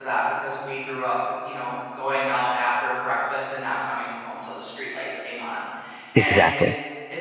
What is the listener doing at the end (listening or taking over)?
listening